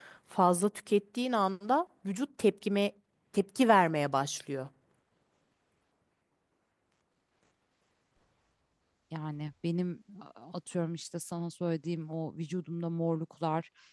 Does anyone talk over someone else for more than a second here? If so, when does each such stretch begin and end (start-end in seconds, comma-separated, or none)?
none